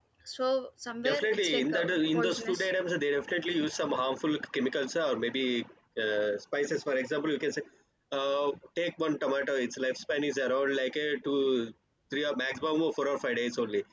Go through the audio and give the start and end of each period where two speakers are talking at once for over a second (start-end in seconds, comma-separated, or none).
1.0-2.7